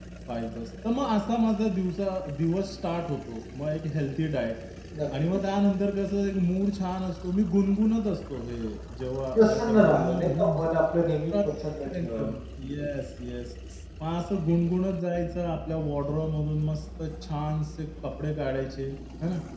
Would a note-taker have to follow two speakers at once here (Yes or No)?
Yes